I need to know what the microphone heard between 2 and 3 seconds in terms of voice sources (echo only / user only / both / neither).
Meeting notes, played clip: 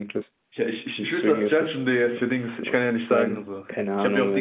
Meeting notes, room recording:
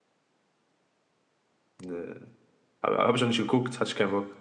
user only